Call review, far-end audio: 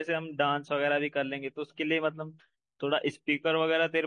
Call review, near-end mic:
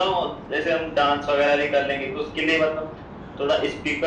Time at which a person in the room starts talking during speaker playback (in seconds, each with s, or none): none